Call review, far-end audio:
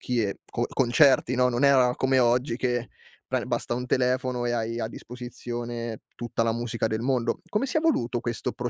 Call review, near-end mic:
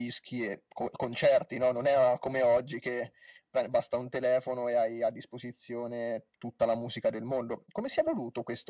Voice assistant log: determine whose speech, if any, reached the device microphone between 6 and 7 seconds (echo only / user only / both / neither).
echo only